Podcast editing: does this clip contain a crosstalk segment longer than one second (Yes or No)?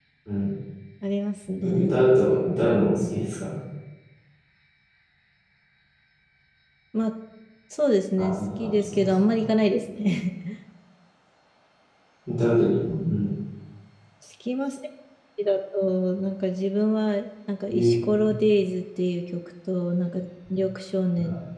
Yes